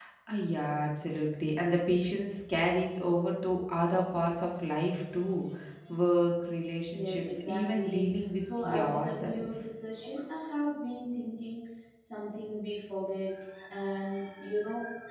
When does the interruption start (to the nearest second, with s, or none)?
7 s